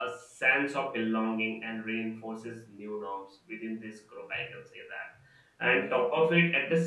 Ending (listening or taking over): listening